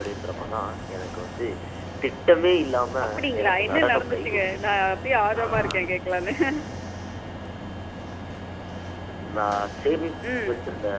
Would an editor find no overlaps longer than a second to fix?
No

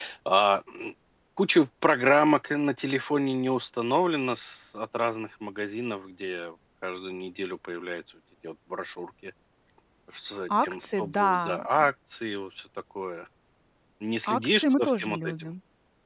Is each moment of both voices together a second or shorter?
No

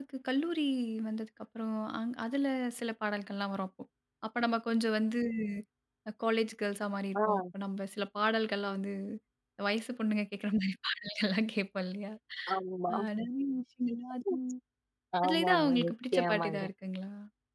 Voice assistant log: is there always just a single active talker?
No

